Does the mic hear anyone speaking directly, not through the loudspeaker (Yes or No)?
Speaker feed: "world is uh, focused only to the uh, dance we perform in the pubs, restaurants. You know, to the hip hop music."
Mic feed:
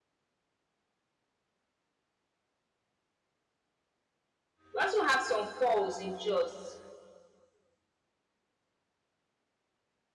Yes